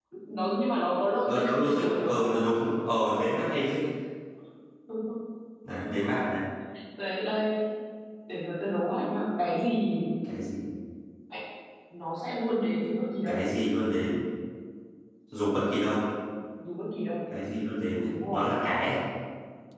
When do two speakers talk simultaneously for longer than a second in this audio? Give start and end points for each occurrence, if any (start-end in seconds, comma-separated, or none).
1.3-2.5